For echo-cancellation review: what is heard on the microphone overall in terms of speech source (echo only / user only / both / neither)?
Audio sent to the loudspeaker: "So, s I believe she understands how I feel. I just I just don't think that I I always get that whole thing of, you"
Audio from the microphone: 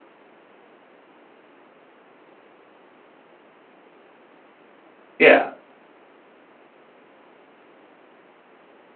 user only